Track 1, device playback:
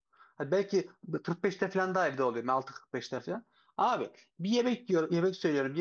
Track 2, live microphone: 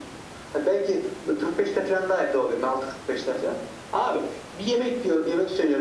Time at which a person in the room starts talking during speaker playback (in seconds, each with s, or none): none